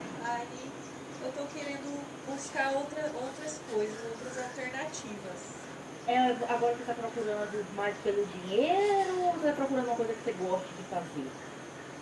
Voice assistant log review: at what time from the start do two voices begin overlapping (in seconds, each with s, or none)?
none